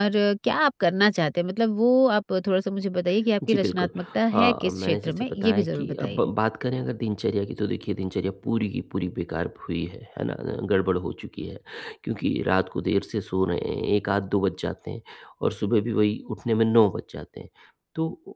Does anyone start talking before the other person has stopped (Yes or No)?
Yes